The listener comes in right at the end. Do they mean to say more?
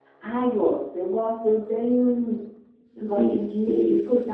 No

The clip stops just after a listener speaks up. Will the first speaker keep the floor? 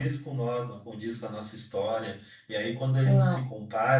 Yes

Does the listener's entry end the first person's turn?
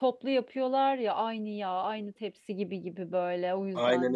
Yes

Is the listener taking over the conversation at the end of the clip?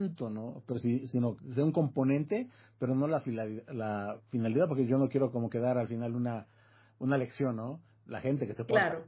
No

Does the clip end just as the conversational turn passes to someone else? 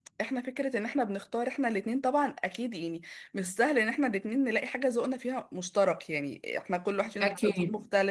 No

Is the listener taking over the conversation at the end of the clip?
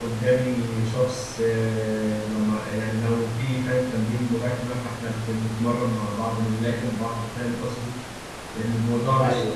No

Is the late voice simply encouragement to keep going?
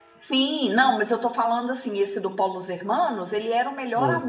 Yes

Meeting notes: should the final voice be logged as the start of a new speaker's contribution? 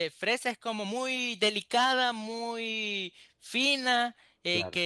No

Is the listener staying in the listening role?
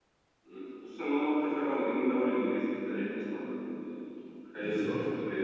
Yes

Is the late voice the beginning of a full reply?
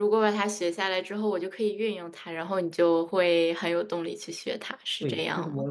Yes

